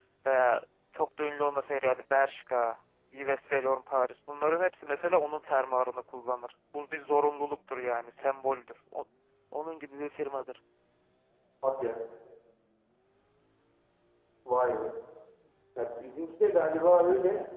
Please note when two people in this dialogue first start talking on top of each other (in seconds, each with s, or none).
none